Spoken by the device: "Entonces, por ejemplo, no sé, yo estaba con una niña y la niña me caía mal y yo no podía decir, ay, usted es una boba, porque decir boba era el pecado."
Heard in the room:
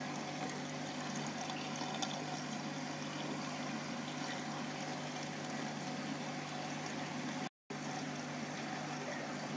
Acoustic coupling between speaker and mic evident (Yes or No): No